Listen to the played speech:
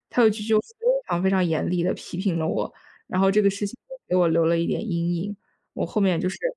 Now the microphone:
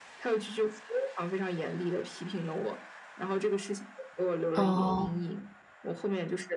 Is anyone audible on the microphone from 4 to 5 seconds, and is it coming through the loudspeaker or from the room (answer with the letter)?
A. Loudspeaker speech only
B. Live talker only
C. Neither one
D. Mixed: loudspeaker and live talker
D